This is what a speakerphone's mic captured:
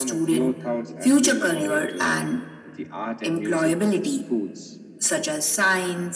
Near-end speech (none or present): none